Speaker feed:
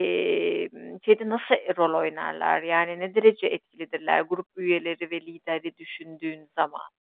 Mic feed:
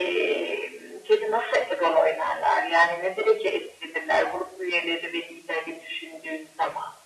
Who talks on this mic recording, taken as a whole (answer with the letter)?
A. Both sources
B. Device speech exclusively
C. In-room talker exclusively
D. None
B